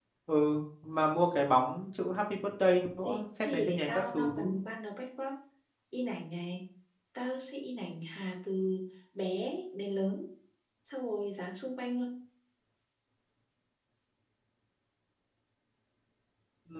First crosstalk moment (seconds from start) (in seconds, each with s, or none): 3.0 s